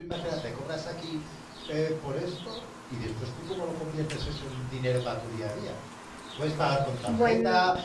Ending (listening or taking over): listening